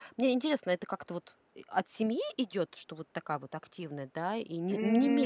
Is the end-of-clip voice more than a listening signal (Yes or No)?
Yes